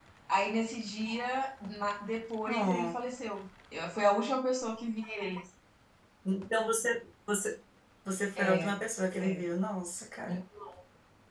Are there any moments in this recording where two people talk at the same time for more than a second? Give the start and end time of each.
none

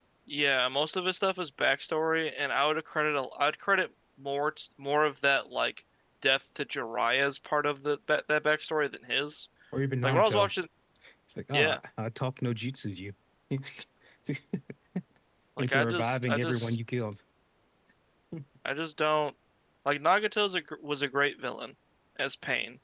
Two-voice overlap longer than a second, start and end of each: 15.6-16.8

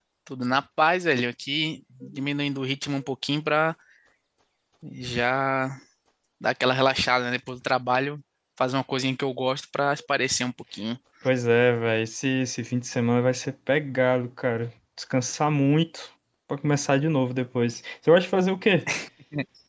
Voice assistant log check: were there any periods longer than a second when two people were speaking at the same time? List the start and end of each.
none

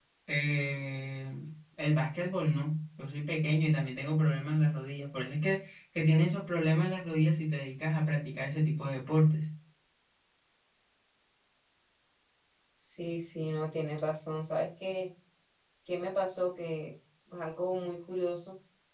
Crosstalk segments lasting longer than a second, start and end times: none

